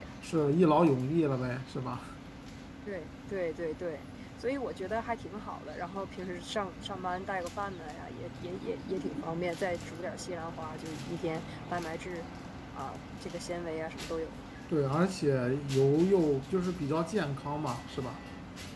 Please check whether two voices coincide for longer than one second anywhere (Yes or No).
No